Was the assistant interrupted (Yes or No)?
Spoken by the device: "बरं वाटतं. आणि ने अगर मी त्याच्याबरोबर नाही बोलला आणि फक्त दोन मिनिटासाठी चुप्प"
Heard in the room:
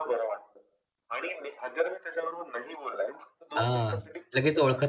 Yes